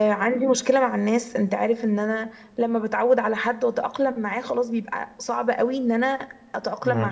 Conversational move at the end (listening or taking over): listening